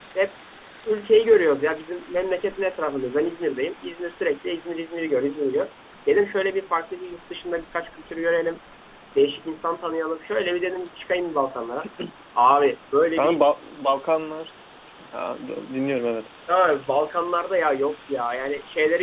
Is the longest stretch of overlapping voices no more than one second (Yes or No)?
Yes